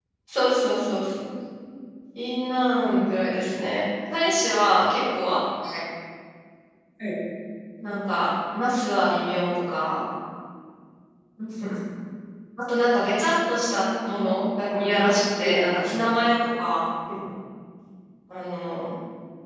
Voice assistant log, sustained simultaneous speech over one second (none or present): present